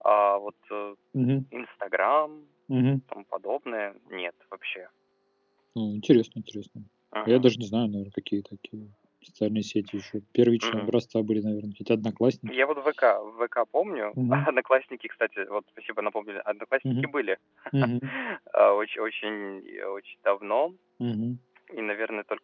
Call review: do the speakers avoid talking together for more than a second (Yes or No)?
Yes